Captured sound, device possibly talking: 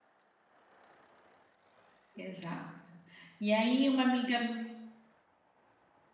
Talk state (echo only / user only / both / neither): user only